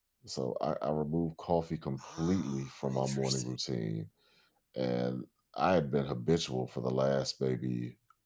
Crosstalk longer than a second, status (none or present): present